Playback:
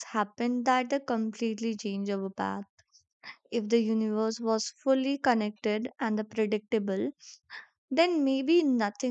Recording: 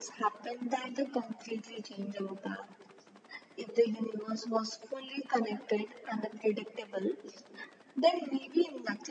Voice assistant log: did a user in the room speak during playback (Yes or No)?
No